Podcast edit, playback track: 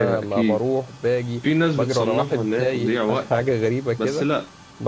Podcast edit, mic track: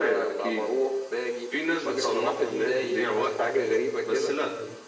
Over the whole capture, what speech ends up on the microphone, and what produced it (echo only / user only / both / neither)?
both